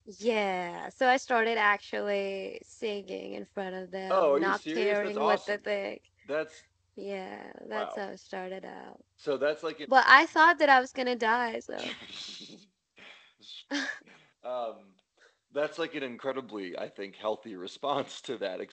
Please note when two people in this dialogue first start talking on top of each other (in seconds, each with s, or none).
4.1 s